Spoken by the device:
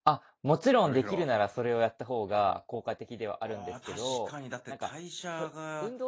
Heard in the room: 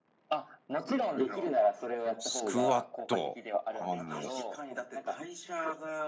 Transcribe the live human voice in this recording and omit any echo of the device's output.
スクワット。あの

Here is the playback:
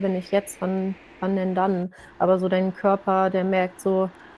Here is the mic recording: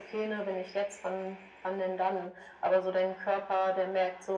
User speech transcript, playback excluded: none

